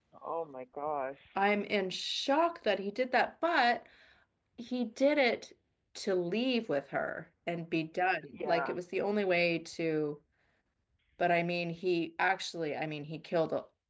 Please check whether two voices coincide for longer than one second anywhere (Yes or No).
No